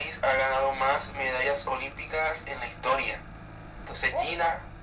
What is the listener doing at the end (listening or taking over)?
listening